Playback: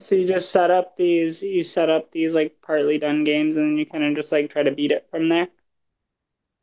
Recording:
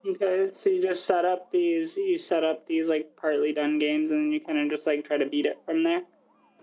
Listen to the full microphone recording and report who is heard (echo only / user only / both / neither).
echo only